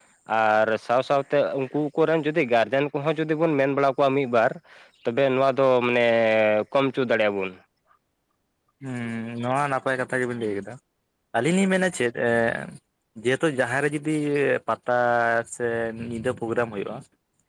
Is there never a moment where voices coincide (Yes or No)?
Yes